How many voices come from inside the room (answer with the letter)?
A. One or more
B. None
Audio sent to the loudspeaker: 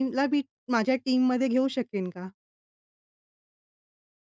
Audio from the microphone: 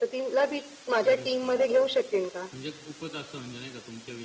A